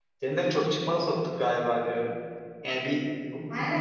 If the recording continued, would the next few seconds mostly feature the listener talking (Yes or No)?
Yes